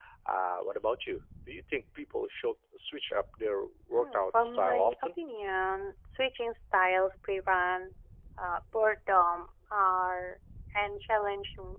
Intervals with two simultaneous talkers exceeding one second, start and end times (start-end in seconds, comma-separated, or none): 4.0-5.2